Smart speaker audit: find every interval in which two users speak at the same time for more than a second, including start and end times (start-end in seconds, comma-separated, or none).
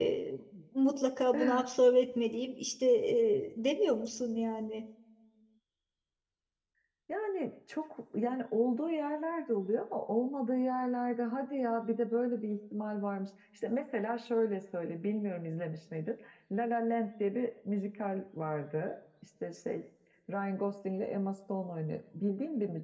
none